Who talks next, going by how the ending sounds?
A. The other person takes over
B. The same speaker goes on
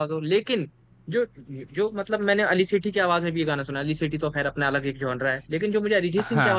B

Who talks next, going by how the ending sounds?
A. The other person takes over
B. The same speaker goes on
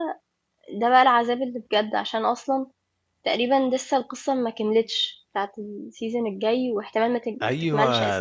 A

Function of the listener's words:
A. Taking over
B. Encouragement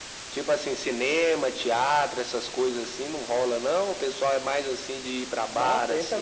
A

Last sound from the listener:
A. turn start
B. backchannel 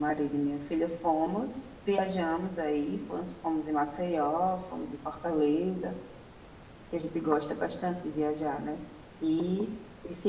B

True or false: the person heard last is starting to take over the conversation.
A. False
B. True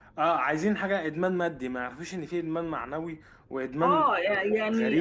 B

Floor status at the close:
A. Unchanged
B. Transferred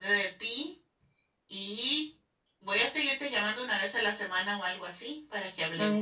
B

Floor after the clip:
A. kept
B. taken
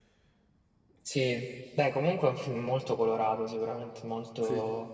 A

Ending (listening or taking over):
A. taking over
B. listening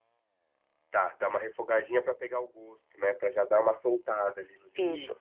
A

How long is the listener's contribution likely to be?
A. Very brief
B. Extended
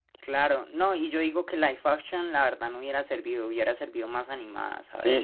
B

